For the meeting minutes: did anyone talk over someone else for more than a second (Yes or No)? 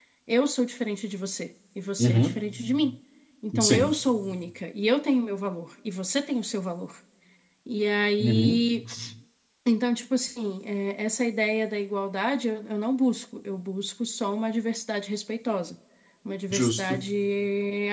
No